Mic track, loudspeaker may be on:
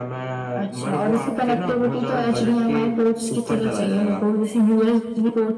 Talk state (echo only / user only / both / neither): echo only